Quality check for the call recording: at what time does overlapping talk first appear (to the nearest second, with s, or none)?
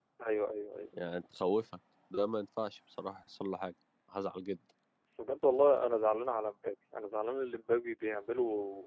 none